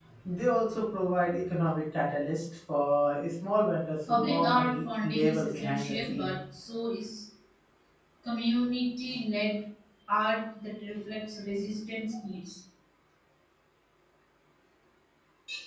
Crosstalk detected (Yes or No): Yes